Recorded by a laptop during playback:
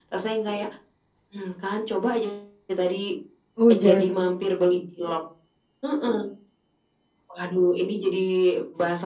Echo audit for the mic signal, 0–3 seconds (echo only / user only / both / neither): echo only